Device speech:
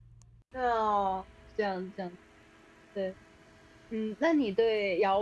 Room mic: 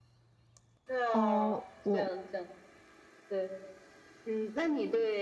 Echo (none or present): present